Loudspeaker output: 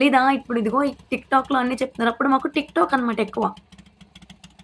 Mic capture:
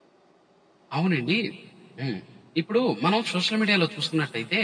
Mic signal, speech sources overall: user only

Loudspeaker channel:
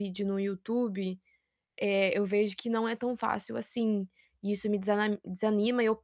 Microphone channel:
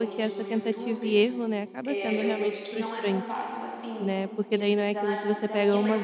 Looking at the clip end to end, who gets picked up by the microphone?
both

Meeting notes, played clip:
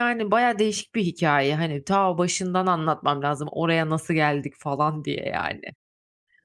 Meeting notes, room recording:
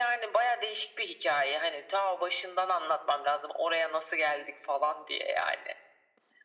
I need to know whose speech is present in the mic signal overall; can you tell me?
echo only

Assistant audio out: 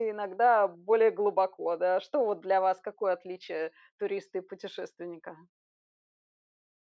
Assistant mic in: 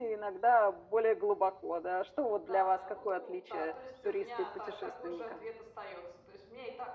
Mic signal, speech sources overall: both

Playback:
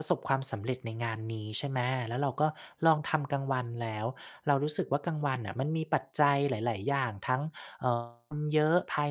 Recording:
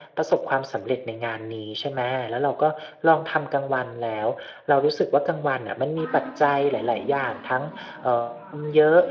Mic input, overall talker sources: both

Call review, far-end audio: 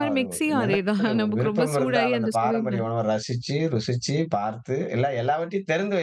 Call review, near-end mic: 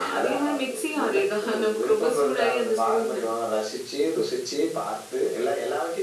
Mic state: echo only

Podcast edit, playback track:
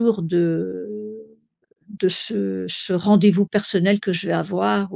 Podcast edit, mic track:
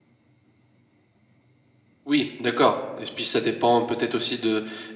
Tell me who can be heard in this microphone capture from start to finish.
user only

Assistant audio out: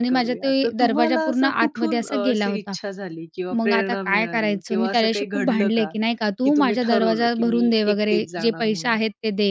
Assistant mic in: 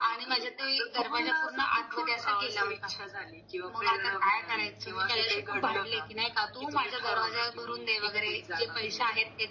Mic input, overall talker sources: echo only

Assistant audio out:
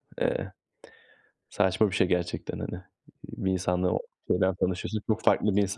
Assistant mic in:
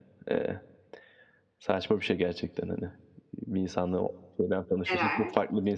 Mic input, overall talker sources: both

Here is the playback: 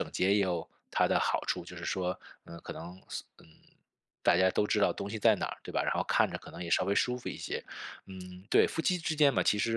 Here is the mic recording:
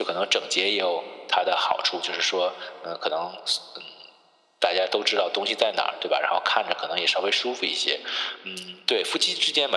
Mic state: echo only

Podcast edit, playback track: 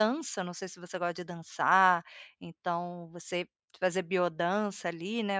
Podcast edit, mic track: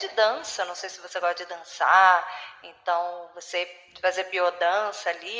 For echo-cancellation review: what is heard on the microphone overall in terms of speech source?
echo only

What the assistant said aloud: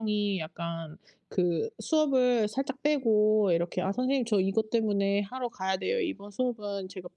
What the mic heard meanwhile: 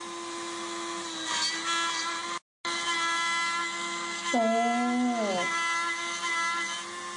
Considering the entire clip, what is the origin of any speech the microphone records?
user only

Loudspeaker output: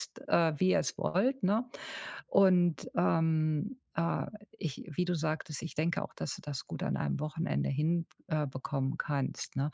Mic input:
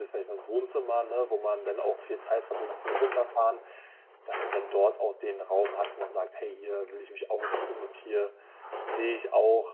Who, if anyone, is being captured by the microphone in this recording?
user only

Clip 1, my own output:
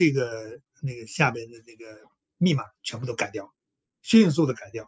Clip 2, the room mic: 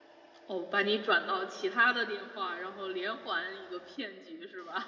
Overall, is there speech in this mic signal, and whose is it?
user only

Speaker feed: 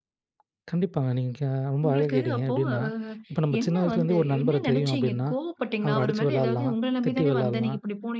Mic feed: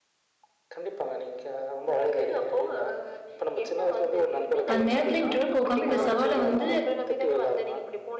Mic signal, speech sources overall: both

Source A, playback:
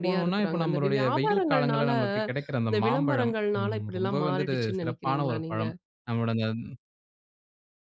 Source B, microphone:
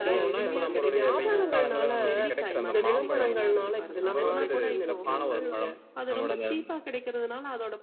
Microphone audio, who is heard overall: both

